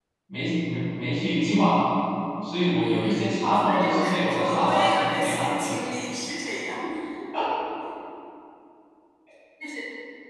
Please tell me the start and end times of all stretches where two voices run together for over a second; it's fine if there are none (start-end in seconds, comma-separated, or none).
2.8-5.7